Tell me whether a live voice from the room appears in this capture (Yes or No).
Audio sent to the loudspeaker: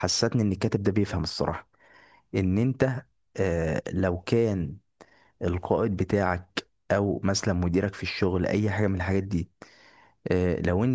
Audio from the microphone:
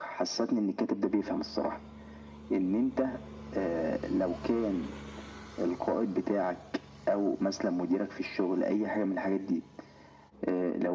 No